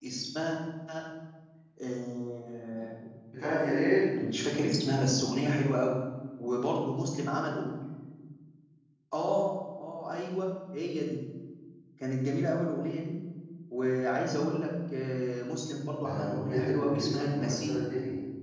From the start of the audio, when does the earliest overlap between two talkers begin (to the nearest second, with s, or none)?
16 s